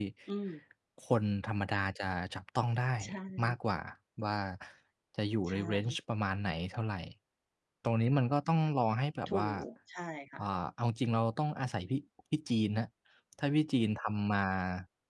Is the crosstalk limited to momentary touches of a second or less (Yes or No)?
Yes